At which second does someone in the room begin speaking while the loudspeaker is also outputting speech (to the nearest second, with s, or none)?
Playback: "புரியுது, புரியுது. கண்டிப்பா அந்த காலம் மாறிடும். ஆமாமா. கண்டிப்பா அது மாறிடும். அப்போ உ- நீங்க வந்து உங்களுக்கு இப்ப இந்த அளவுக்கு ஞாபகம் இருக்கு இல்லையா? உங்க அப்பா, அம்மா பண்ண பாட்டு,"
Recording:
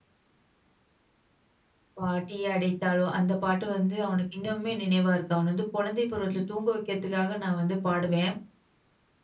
2 s